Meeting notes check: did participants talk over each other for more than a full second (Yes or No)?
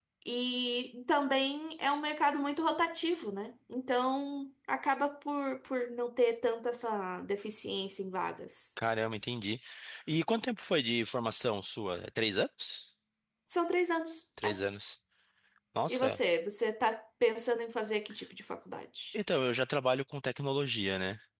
No